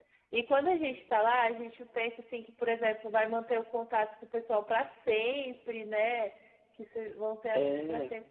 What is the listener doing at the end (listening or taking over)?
listening